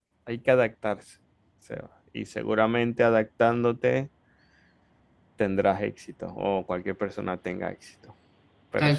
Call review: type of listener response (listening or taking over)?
taking over